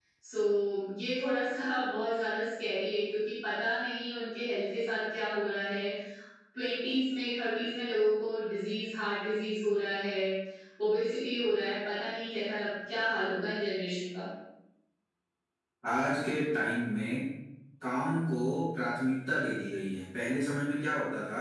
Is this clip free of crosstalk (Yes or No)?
Yes